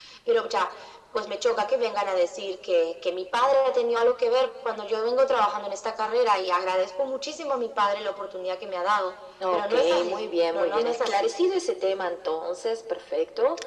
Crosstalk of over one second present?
Yes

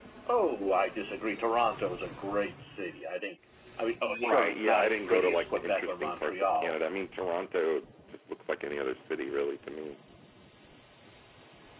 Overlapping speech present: Yes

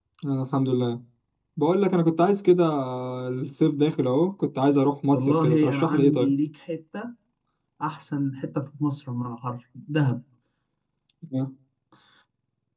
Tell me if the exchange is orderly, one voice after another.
No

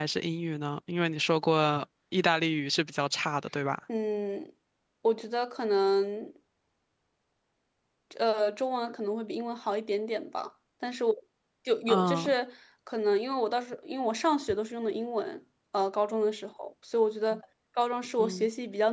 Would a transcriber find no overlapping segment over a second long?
Yes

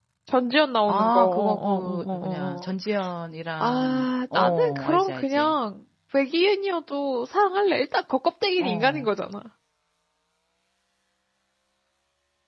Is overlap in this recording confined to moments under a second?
No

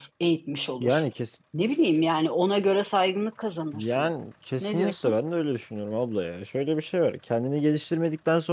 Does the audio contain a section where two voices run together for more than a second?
No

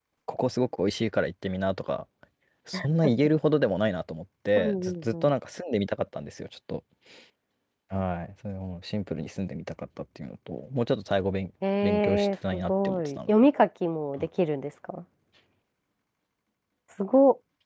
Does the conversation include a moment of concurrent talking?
Yes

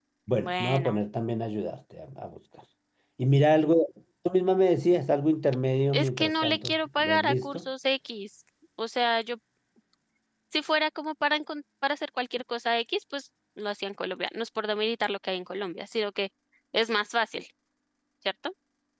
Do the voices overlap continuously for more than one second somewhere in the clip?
Yes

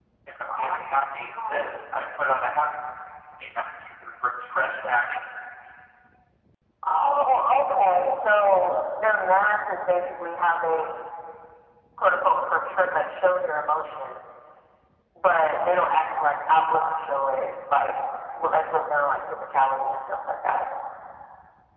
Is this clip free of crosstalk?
No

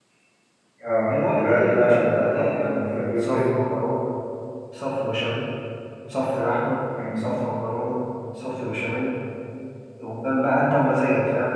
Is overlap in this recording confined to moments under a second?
No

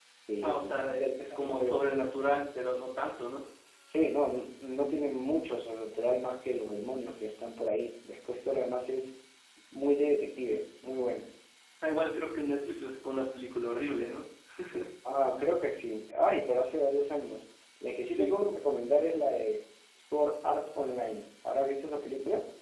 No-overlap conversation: No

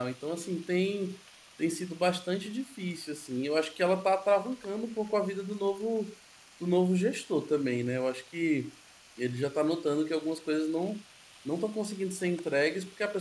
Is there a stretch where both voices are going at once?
No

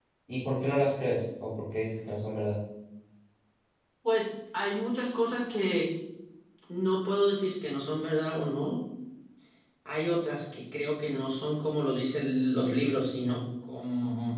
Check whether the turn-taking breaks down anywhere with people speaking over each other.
No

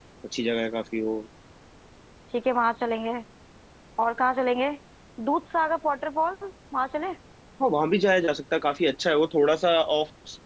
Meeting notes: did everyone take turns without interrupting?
Yes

